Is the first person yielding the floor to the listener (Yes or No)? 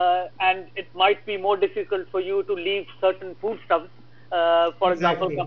No